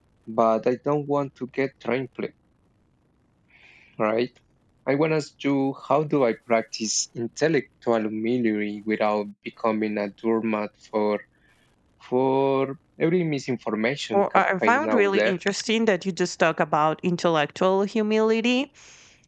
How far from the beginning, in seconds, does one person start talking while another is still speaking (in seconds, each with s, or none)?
14.1 s